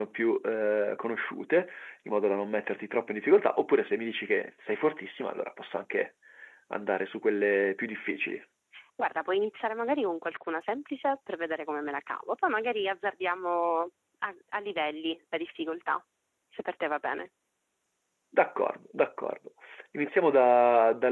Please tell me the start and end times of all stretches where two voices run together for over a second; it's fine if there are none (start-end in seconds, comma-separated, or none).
none